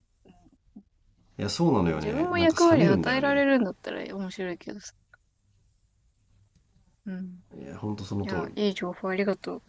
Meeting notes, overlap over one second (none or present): present